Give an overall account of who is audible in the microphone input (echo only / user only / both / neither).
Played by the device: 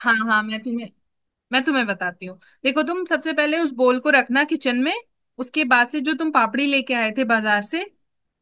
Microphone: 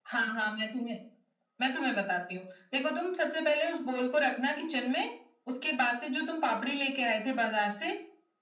echo only